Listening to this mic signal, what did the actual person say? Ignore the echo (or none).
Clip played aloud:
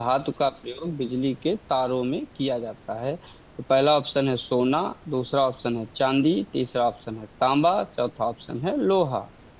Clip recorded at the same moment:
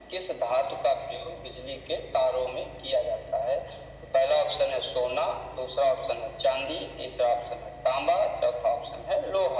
none